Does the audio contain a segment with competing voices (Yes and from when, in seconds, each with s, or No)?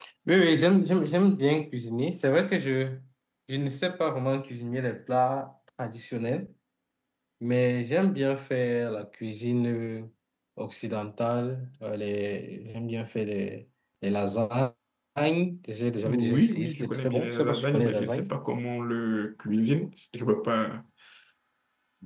Yes, from 16.1 s